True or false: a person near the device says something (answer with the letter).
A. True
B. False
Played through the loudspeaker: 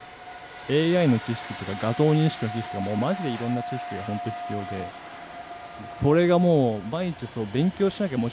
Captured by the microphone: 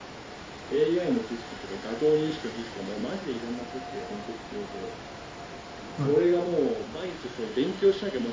A